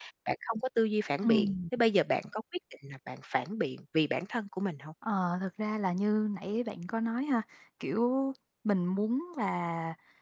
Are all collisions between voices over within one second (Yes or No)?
Yes